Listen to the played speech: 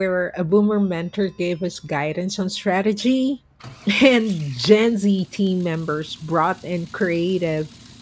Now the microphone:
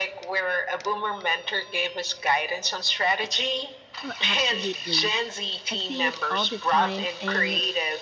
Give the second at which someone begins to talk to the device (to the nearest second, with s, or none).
4 s